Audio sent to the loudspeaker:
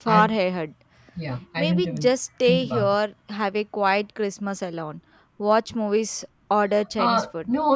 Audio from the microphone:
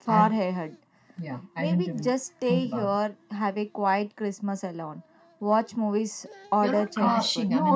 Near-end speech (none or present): present